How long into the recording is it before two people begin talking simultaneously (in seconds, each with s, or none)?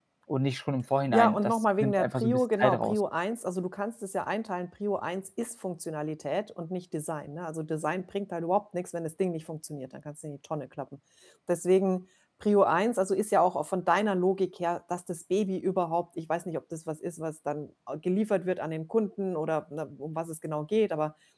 1.1 s